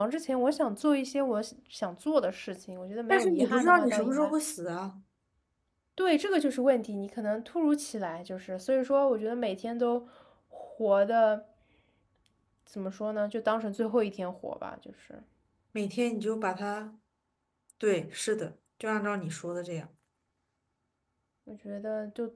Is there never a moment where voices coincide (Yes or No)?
No